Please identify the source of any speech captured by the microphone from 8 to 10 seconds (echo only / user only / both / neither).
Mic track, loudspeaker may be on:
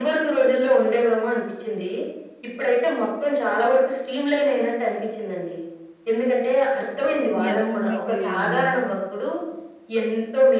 both